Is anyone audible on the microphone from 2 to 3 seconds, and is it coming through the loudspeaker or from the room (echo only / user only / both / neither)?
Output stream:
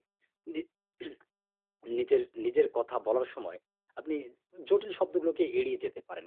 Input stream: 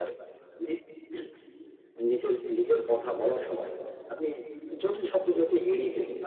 echo only